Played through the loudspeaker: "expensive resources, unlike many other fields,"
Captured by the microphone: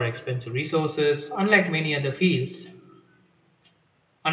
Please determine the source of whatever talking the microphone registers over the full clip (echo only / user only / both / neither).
echo only